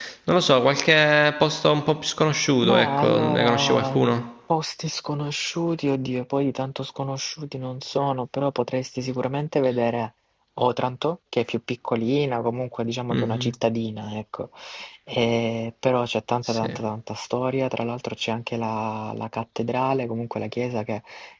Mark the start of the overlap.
3 s

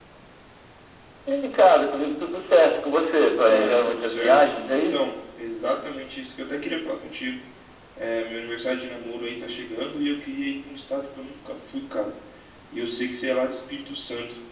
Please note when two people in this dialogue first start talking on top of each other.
3 s

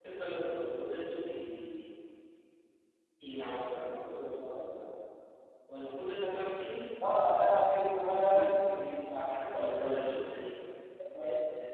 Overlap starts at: 8 s

